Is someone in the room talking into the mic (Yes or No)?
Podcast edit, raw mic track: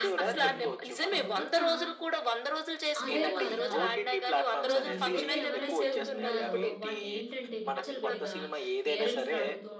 Yes